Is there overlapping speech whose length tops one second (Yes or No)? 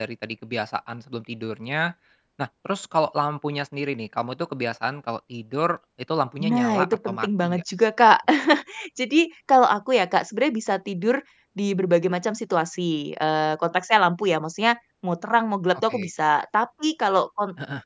Yes